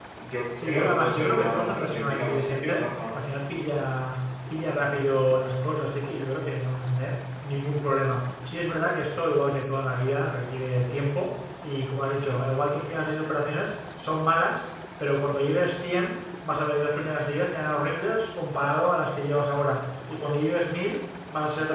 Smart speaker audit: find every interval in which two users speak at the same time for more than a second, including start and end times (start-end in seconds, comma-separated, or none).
0.6-3.2